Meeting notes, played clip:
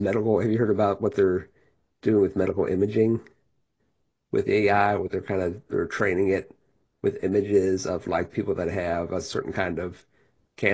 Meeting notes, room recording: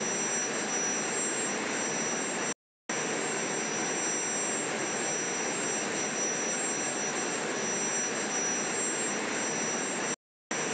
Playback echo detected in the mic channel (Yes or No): No